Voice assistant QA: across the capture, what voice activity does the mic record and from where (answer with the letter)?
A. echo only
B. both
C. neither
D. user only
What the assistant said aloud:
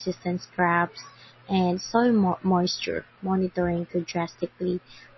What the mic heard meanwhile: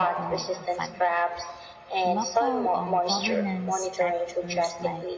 B